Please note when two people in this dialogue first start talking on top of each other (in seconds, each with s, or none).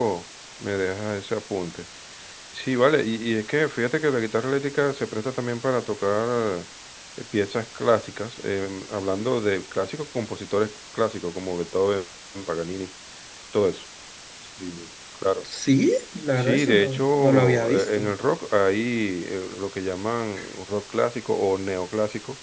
16.4 s